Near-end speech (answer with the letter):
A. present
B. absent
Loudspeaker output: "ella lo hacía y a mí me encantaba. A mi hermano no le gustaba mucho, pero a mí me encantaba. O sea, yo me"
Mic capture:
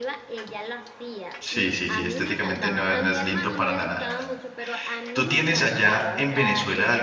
A